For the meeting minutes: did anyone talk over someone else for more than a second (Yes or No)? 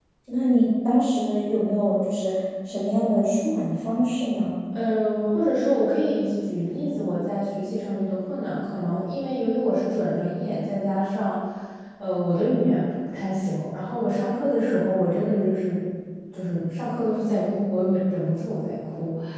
No